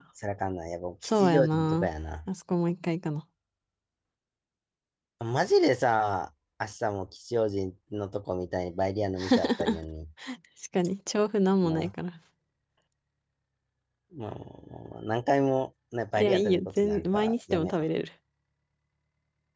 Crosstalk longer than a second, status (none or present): present